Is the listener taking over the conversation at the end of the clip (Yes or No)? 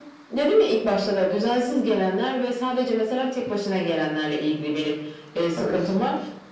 No